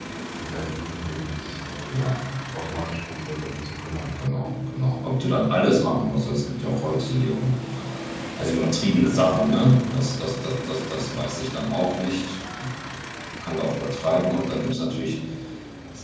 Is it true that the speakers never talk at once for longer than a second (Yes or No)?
Yes